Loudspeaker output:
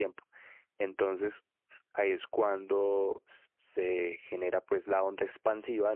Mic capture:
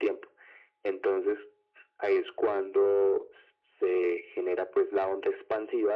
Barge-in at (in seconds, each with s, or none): none